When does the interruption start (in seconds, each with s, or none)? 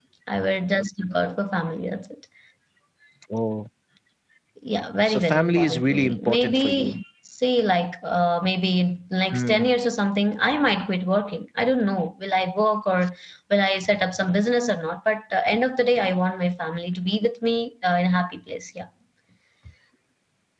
5.0 s